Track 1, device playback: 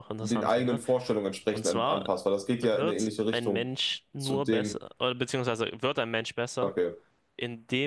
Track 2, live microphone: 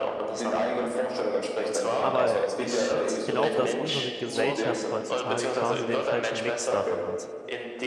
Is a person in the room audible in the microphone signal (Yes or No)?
Yes